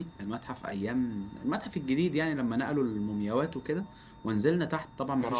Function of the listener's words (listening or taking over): listening